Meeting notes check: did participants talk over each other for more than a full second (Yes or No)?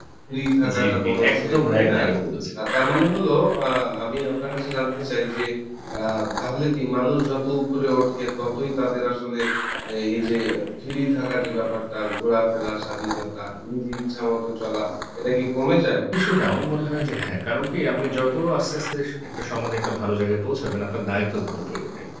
Yes